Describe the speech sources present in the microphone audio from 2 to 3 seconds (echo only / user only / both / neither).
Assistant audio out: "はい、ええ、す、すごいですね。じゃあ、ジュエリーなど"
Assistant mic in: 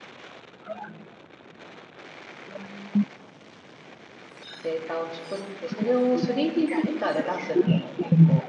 echo only